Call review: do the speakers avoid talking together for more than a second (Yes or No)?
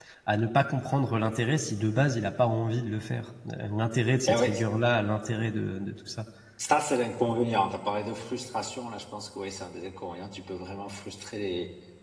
Yes